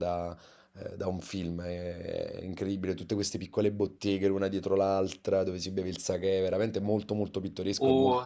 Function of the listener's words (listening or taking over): taking over